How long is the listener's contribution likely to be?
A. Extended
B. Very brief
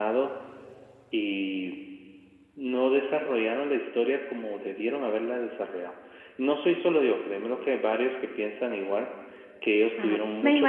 A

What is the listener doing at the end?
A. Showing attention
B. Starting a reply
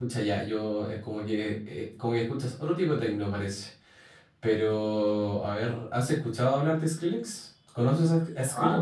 B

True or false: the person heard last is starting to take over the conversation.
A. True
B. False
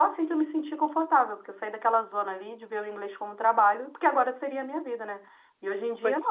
B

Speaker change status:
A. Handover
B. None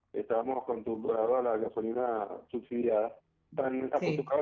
B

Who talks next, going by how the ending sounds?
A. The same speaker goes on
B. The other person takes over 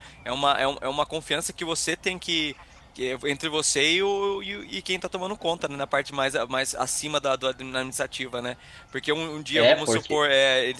A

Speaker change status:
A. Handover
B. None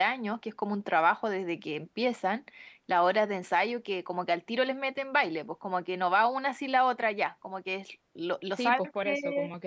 A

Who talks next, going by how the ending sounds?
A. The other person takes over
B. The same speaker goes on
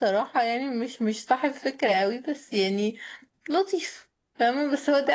A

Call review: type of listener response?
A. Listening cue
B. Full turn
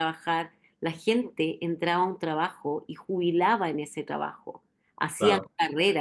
A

